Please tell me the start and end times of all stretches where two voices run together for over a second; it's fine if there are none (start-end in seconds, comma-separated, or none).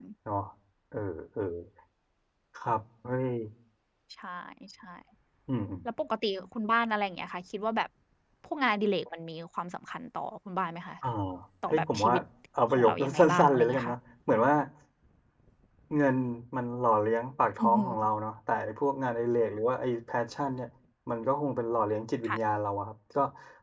12.7-14.0